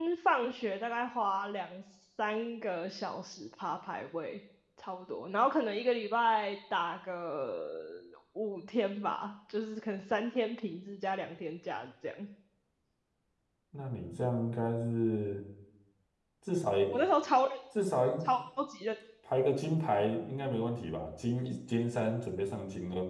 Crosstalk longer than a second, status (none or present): none